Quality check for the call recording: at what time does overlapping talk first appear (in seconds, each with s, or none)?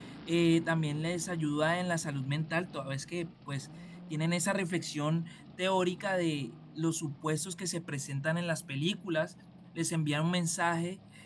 none